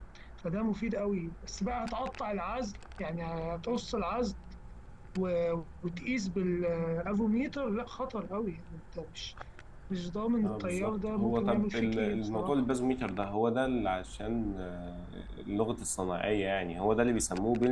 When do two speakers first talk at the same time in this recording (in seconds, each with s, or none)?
10.4 s